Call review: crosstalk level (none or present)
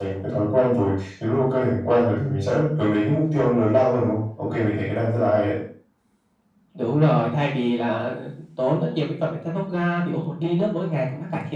none